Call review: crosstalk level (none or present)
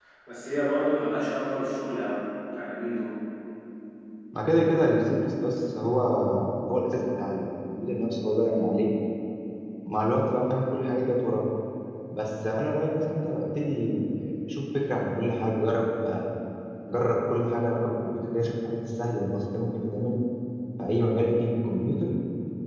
none